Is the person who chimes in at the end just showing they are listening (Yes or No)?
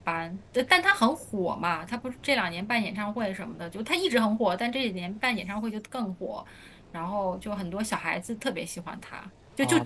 Yes